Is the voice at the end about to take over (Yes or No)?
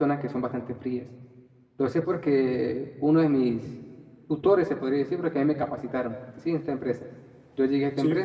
No